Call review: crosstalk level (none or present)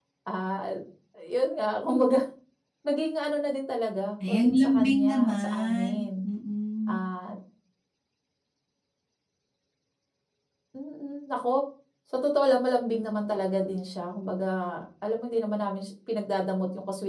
present